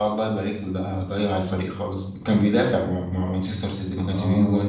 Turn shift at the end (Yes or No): Yes